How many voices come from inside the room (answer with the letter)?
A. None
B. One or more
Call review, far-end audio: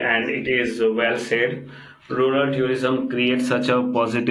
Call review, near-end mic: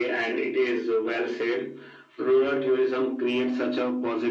A